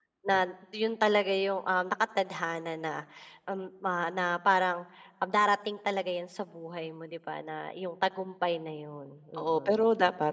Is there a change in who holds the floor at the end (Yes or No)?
Yes